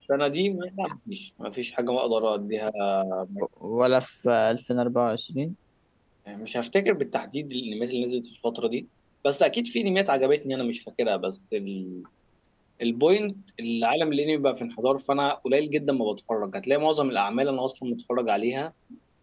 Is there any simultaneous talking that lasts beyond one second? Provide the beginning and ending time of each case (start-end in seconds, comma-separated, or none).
none